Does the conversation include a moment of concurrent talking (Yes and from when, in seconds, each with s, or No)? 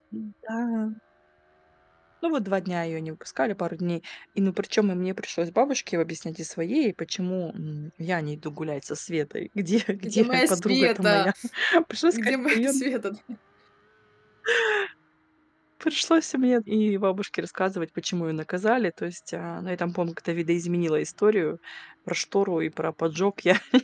Yes, from 10.1 s